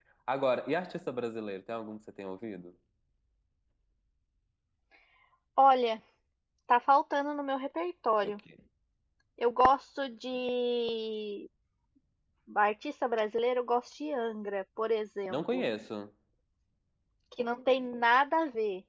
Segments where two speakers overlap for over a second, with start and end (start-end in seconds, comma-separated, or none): none